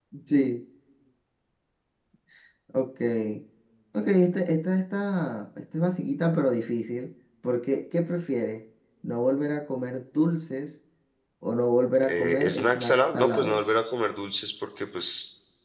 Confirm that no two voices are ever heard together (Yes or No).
No